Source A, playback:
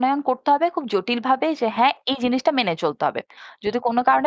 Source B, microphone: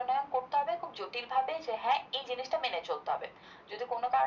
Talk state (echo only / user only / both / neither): echo only